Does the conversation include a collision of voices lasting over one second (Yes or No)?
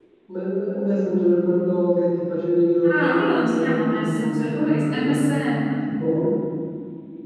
Yes